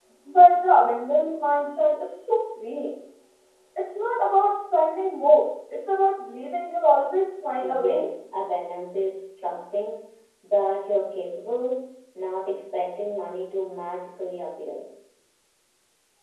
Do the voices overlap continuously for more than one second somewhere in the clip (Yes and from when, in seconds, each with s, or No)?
No